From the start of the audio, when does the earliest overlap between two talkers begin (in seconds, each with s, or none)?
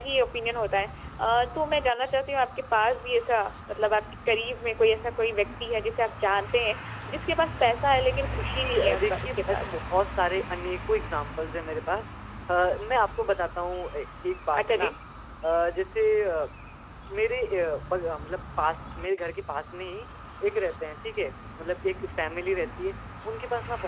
8.4 s